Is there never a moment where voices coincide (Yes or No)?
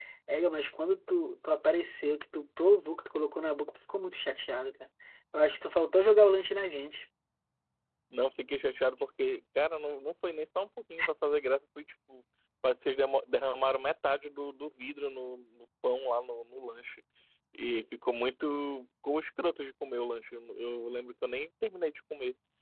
Yes